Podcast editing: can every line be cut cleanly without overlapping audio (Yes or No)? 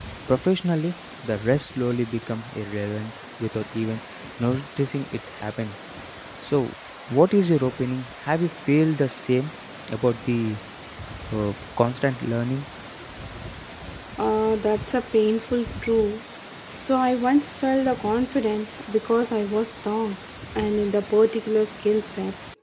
Yes